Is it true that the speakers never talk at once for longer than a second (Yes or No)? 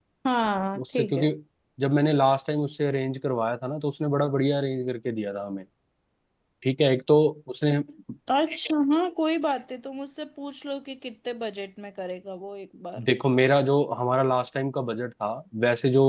Yes